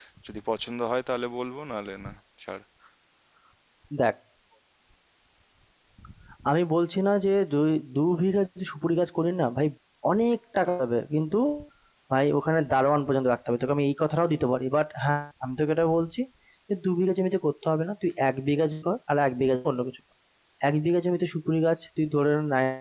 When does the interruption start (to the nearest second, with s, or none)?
none